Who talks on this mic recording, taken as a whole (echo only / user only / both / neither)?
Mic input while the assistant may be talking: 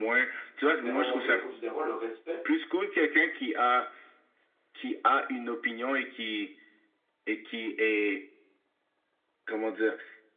both